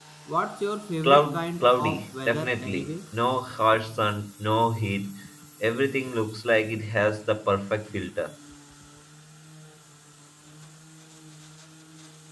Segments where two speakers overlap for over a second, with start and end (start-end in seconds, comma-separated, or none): 1.0-3.0